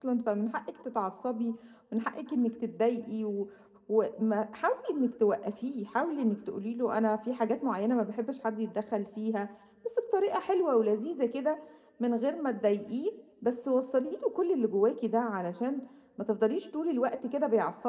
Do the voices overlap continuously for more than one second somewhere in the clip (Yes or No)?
No